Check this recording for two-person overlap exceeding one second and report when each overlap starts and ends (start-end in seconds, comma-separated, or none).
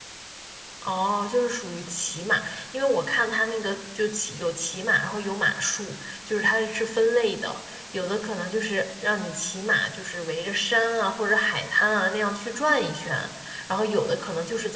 none